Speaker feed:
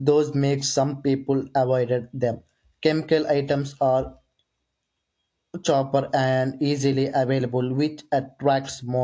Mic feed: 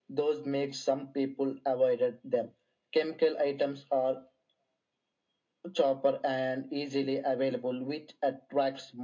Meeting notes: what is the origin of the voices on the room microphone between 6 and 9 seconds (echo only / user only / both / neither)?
echo only